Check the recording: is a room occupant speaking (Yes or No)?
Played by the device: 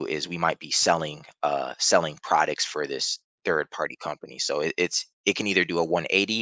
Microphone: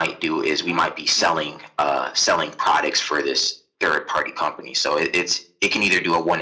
Yes